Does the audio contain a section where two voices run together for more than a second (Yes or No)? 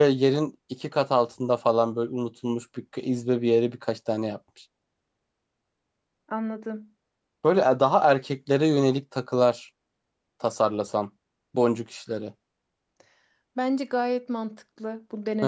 No